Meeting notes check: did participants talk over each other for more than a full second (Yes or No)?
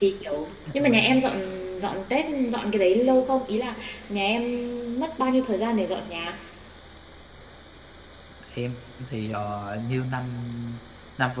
No